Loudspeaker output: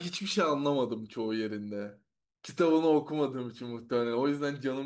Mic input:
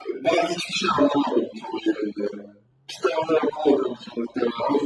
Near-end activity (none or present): none